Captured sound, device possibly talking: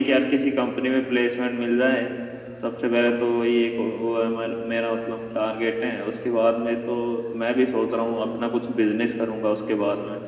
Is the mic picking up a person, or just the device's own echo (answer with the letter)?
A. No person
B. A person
A